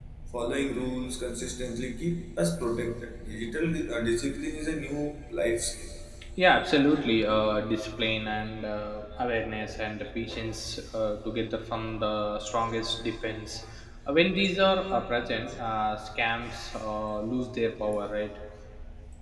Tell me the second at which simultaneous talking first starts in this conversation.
none

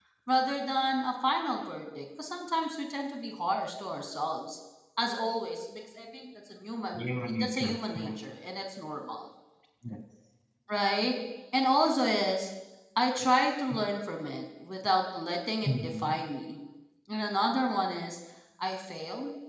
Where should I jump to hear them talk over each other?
7.0 s

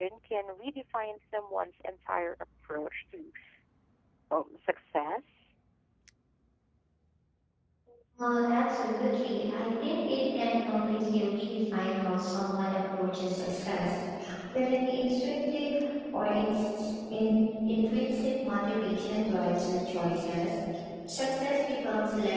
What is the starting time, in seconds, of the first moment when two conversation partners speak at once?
none

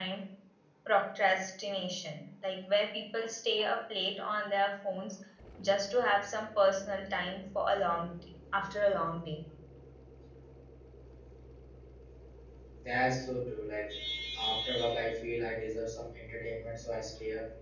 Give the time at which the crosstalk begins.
none

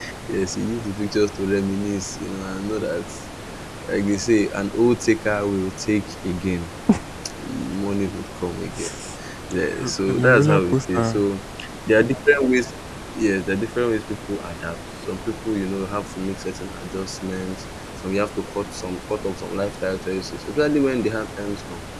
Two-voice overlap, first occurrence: 9.8 s

